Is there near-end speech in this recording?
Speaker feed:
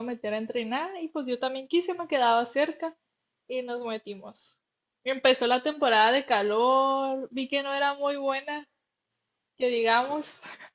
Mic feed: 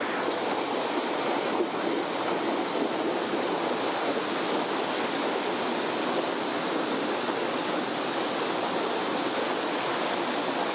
No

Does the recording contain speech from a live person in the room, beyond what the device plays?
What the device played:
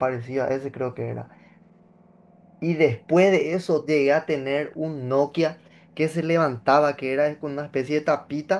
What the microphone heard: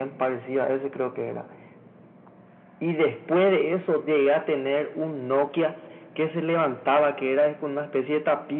No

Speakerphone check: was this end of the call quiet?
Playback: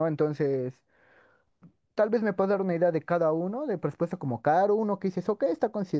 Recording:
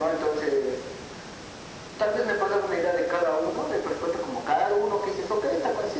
Yes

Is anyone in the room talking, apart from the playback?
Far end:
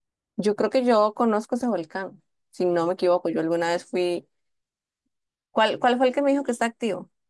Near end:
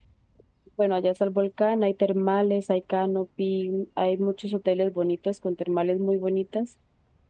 Yes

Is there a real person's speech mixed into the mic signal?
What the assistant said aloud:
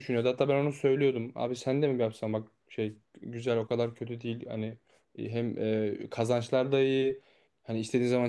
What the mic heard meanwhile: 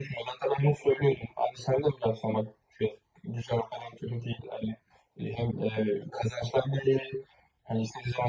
No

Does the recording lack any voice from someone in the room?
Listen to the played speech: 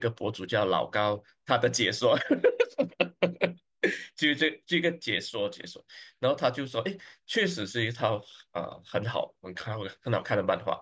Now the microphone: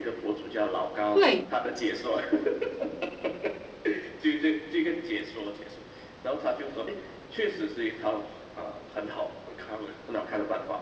No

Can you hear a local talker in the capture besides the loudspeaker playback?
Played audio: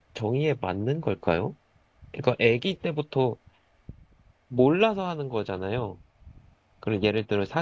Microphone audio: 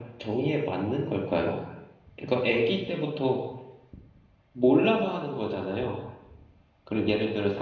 No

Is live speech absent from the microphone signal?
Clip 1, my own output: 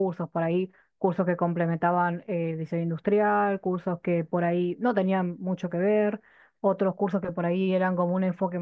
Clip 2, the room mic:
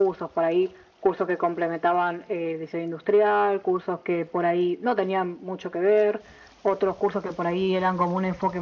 Yes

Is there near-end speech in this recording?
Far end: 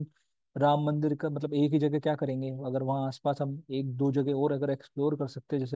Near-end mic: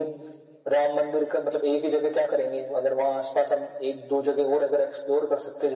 No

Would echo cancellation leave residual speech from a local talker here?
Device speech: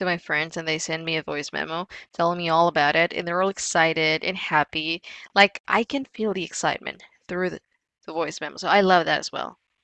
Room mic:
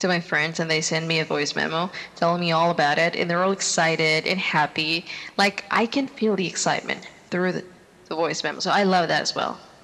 No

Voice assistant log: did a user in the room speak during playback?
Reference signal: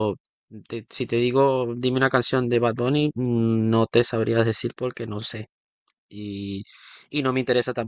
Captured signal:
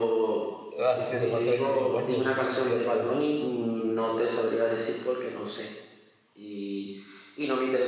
Yes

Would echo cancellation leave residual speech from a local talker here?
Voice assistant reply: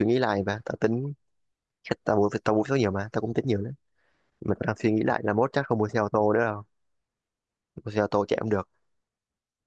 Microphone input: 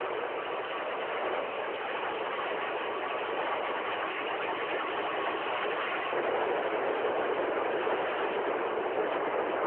No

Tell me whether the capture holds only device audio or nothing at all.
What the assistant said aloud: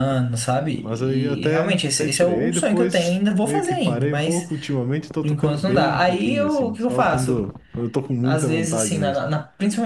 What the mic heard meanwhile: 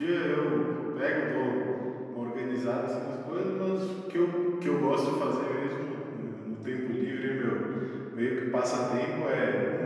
No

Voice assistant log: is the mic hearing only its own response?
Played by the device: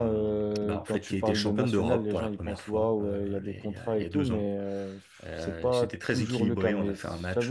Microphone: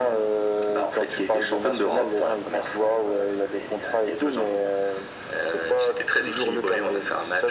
Yes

